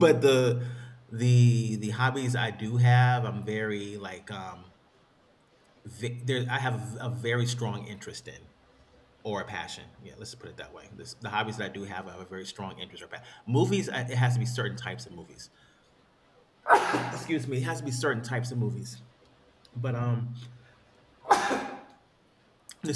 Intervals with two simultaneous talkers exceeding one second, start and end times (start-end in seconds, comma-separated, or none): none